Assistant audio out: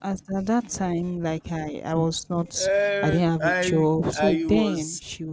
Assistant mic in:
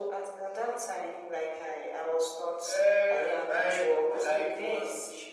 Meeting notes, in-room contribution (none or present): none